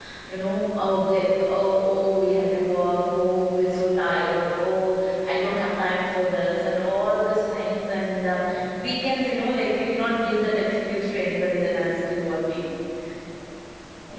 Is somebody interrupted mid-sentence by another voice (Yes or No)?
No